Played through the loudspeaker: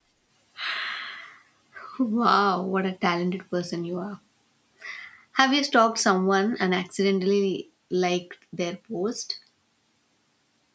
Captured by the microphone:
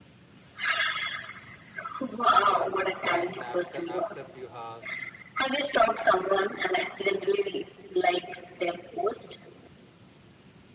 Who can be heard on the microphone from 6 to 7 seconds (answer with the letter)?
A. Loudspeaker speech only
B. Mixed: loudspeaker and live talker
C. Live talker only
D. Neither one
A